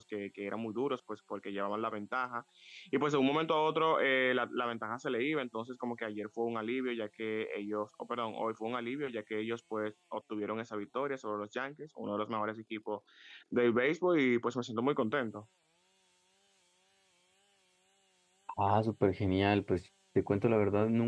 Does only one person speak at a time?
Yes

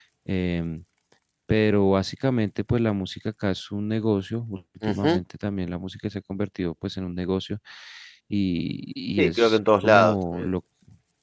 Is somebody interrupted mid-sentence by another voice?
Yes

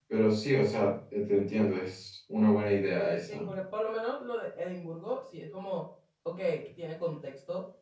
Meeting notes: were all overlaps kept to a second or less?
Yes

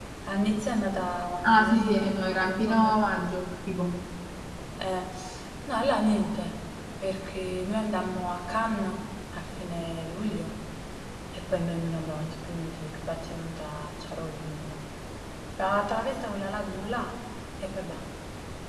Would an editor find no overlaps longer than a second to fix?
No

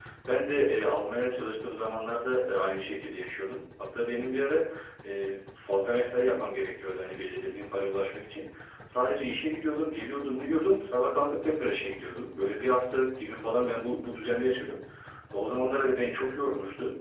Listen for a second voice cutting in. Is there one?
No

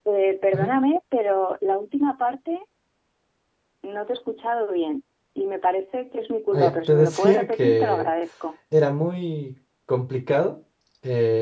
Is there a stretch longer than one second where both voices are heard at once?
Yes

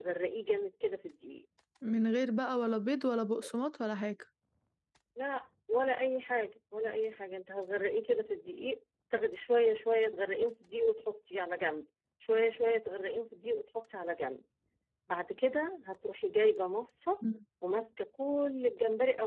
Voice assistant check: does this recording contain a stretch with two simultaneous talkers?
No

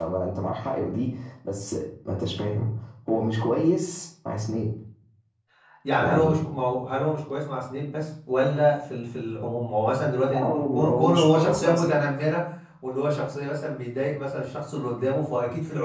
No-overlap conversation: No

